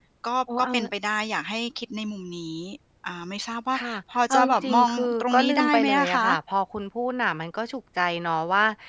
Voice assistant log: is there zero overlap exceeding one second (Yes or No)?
No